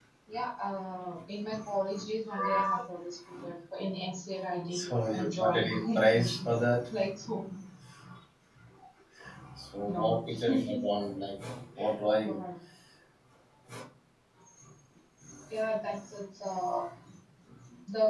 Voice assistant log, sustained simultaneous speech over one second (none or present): present